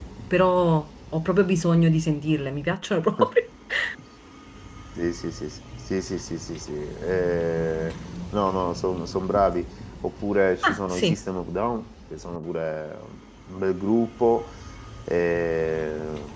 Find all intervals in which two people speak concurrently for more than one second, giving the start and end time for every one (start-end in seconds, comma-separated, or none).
none